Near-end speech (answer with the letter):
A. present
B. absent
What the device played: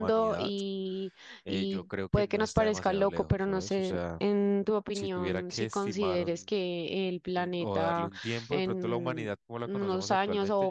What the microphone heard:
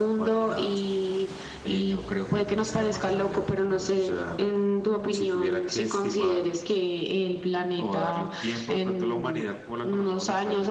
B